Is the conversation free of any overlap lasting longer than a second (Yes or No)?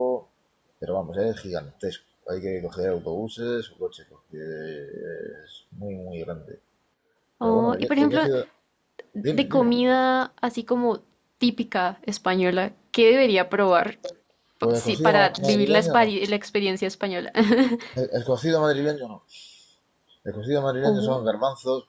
No